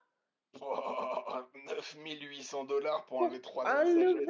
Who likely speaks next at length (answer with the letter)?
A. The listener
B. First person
A